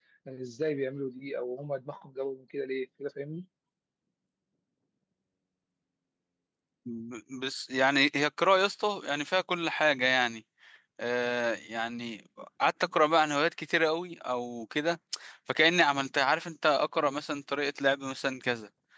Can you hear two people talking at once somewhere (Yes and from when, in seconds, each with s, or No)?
No